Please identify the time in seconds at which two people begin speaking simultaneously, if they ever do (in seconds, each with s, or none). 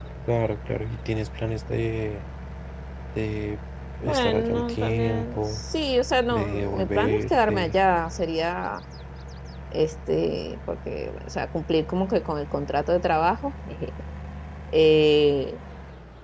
4.0 s